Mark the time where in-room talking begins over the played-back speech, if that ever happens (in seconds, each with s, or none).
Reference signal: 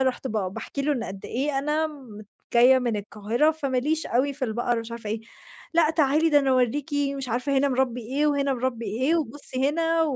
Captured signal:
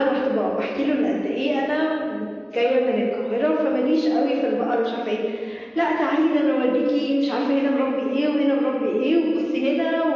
none